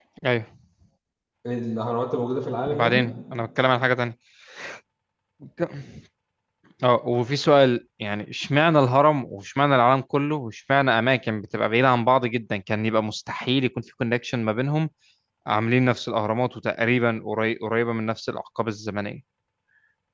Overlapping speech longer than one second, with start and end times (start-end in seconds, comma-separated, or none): none